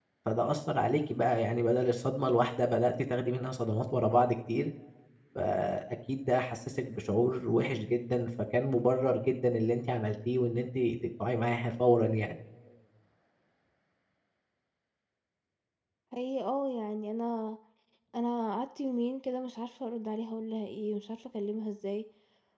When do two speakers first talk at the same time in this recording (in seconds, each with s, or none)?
none